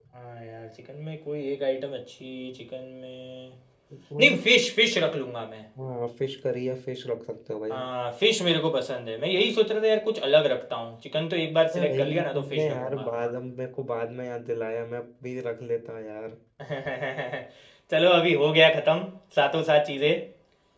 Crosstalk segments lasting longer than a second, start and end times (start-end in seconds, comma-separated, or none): 11.7-13.1